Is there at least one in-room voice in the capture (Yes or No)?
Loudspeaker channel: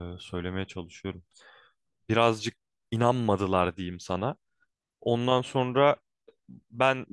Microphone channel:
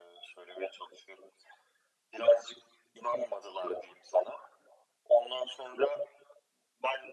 No